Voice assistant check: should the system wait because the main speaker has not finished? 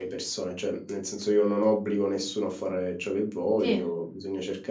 Yes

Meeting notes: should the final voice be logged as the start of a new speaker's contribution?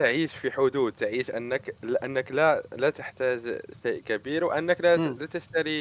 No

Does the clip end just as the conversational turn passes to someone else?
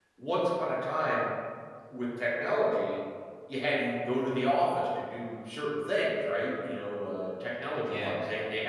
No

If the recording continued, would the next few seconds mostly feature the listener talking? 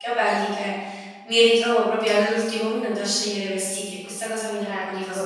Yes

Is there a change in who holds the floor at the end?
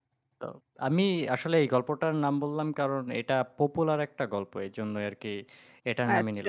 Yes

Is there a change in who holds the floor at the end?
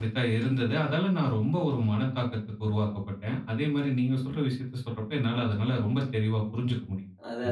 Yes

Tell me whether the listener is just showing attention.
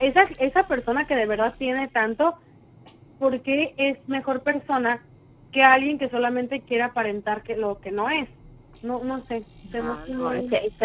No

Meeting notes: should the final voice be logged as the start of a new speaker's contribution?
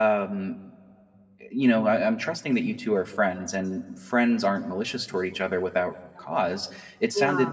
No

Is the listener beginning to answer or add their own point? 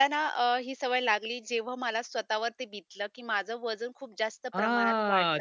Yes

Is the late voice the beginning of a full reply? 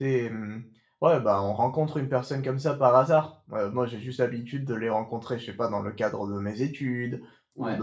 No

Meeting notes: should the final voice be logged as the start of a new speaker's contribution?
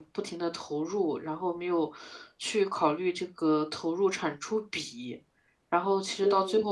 No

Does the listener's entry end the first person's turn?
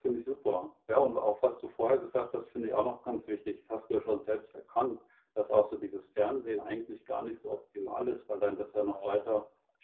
No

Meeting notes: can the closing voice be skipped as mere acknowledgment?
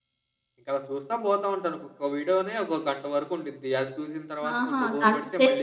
No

